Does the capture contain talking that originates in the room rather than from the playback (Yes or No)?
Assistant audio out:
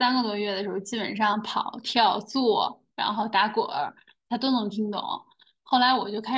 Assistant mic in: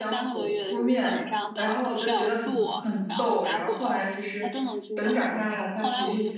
Yes